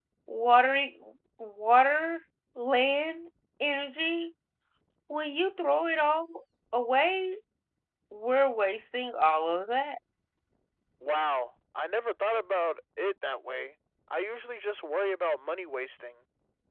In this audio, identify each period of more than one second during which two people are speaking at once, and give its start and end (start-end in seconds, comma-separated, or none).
none